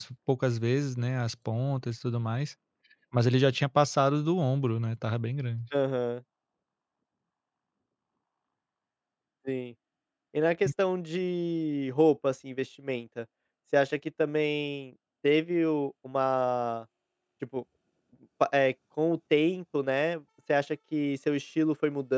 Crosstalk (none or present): none